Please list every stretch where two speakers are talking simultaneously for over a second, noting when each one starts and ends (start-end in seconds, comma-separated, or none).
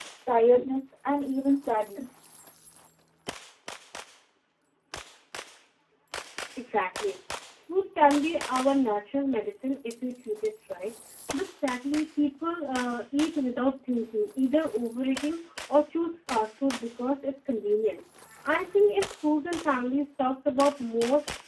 none